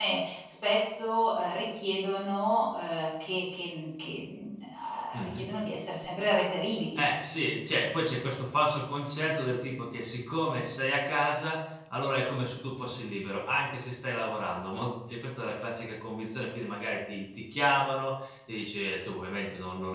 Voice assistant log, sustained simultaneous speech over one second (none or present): none